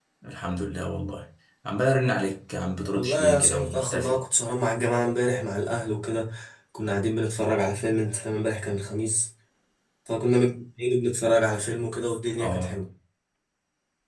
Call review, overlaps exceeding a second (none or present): present